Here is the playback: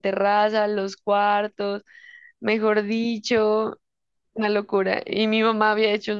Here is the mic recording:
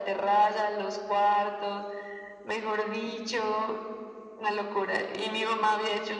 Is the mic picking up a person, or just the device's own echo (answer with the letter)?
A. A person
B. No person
B